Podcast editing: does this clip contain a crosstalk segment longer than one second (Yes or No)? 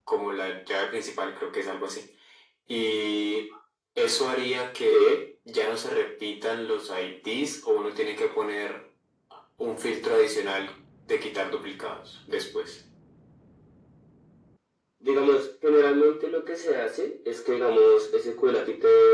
No